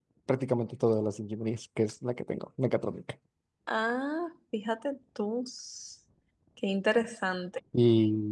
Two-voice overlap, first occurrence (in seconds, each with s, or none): none